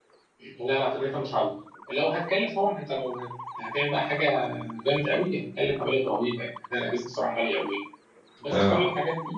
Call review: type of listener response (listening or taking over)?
listening